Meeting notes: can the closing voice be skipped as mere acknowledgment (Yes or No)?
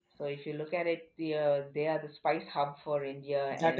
No